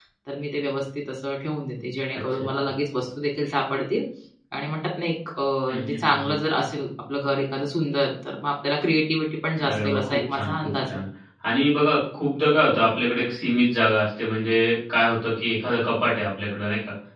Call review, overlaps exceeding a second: present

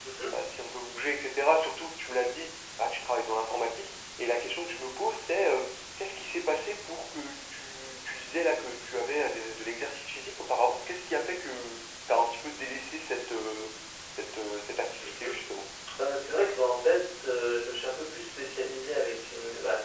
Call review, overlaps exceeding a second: none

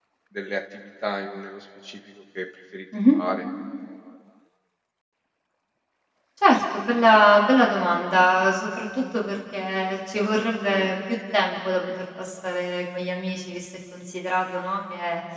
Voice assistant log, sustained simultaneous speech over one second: none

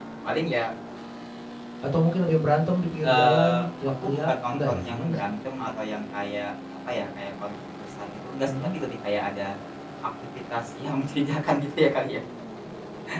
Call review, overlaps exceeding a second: present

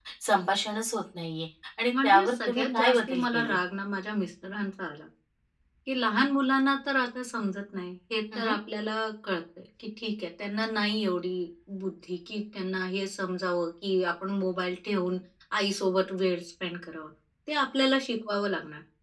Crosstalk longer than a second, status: present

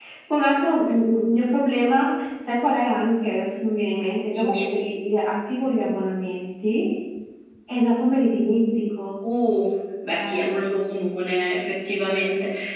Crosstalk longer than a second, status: none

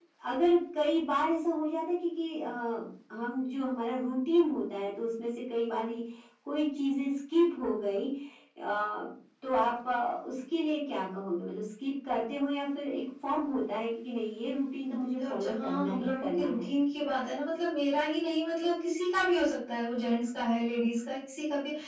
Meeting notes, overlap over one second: present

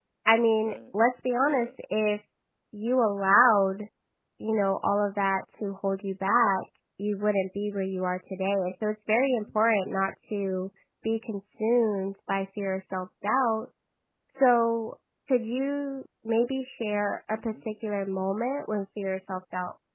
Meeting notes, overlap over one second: none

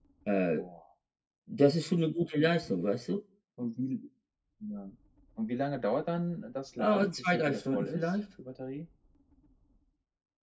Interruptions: present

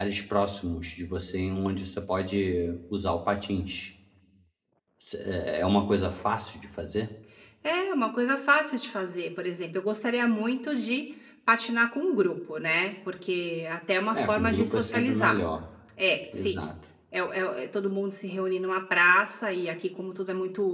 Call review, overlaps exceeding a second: present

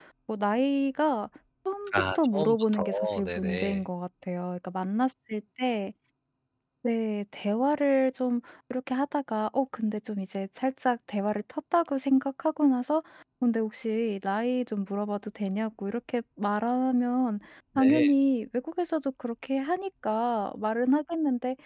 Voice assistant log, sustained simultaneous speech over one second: present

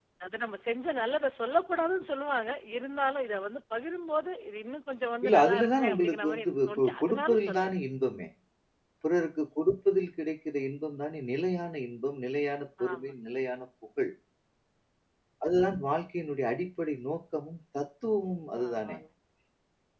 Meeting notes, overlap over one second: present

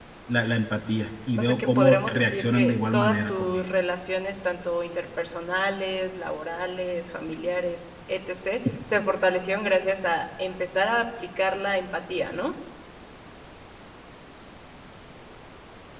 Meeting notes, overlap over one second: present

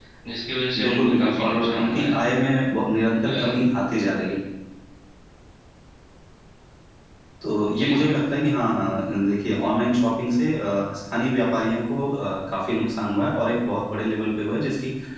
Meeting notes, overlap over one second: present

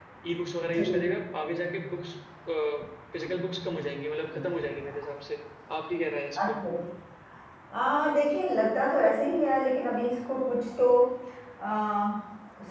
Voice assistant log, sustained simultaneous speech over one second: none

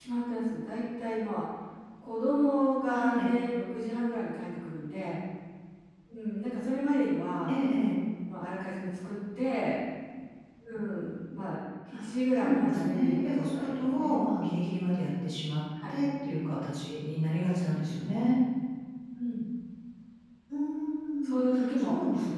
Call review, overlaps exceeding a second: present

